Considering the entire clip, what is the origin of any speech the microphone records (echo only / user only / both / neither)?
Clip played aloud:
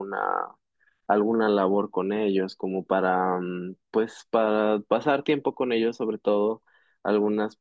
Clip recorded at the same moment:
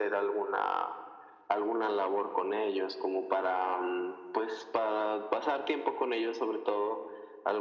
echo only